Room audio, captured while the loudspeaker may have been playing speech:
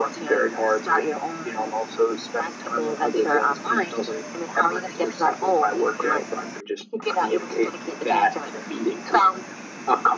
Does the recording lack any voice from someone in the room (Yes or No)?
Yes